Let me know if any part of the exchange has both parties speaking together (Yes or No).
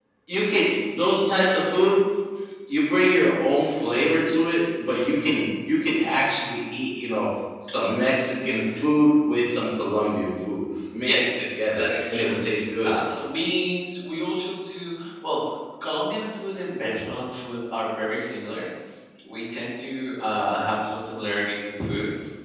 Yes